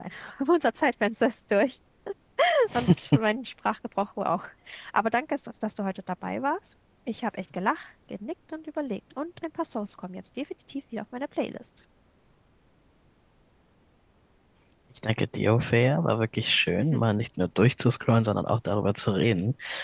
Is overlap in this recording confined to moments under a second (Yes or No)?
Yes